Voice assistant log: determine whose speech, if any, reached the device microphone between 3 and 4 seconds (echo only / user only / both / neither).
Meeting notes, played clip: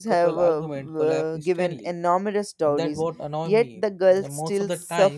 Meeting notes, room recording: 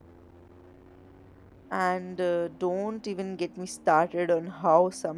user only